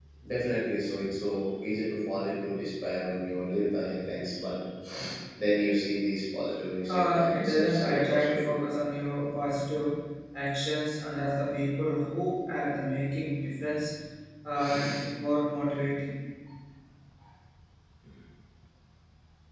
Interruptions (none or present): present